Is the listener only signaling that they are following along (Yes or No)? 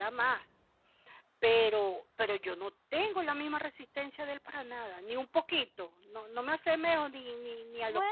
No